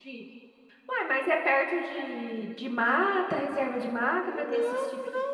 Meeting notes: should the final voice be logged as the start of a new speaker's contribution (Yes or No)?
Yes